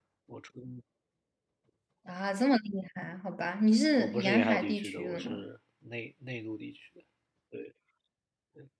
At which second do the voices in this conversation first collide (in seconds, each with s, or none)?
4.0 s